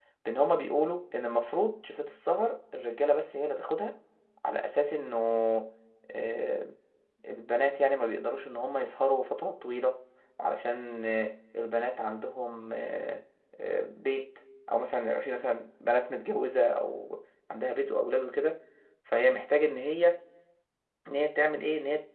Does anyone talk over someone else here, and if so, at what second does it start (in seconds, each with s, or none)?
none